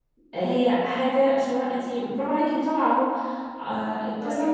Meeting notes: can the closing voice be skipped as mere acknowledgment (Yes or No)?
Yes